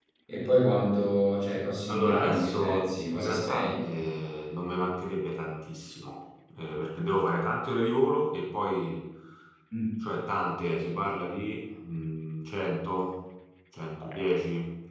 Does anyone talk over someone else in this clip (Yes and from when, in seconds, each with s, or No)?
Yes, from 1.9 s